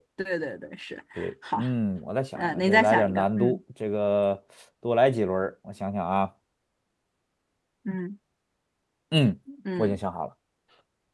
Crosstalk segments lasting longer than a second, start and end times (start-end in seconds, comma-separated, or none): 2.4-3.6